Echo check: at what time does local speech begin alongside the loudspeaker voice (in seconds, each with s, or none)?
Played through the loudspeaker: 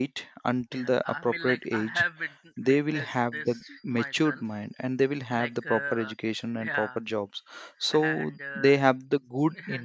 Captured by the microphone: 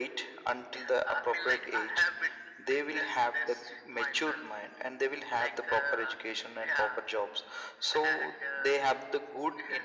none